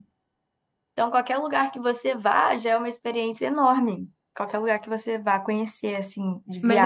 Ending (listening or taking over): taking over